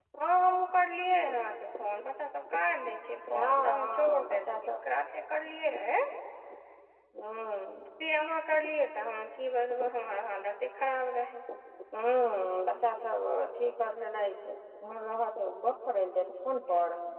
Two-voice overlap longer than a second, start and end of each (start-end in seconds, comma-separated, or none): 3.3-4.7